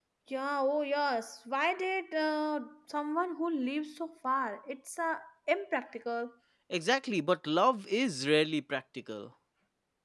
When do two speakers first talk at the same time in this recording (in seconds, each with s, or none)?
none